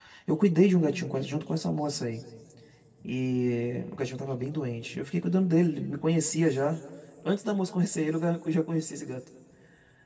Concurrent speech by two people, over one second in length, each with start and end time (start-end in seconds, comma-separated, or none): none